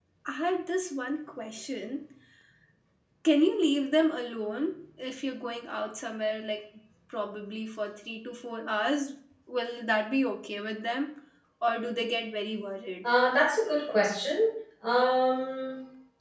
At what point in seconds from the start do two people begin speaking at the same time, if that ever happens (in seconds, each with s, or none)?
none